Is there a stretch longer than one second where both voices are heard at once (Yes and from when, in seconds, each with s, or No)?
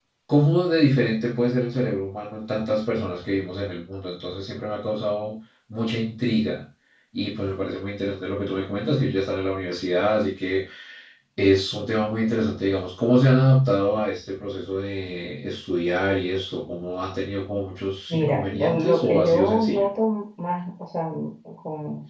Yes, from 18.1 s